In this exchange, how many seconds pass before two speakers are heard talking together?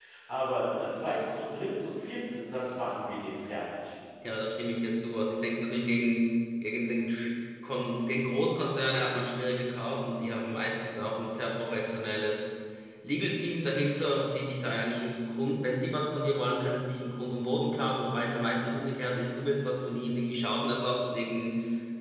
none

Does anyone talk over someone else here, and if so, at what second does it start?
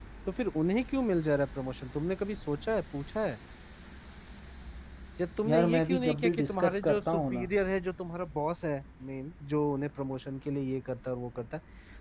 5 s

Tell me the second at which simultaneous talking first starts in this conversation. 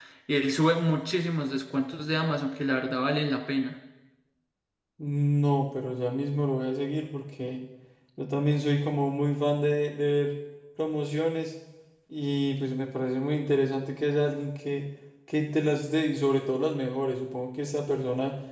none

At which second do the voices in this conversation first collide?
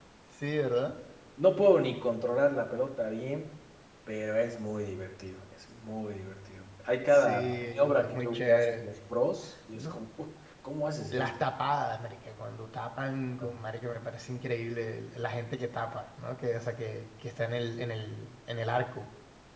7 s

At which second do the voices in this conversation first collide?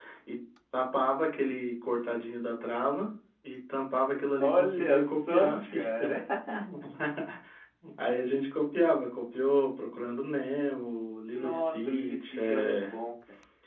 4 s

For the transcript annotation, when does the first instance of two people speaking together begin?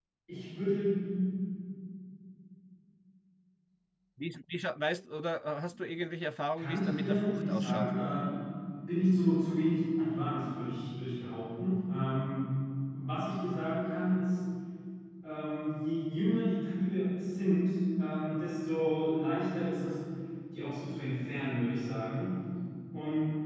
7 s

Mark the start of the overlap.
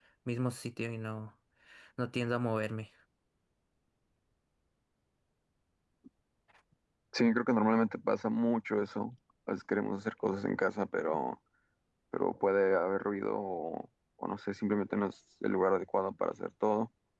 none

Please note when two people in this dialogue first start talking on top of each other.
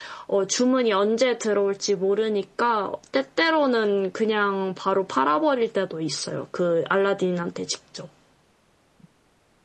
none

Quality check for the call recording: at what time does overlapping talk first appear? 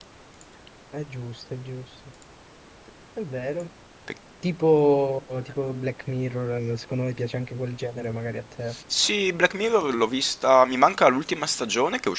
none

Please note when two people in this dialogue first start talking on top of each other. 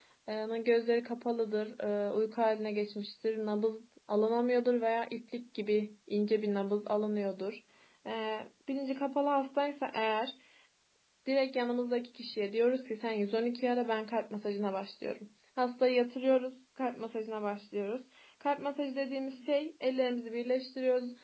none

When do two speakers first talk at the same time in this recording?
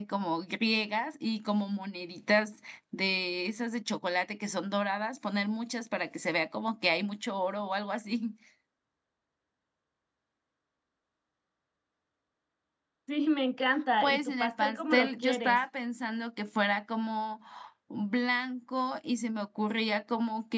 14 s

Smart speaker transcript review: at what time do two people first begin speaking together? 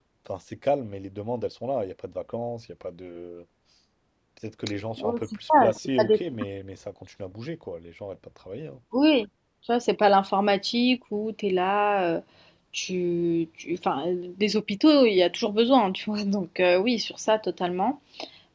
5 s

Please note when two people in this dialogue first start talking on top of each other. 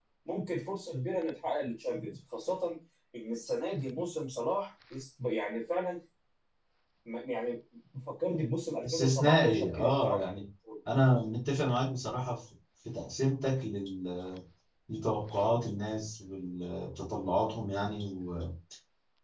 9 s

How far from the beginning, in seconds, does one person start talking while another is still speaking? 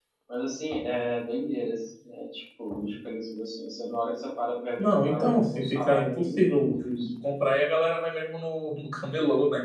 5 s

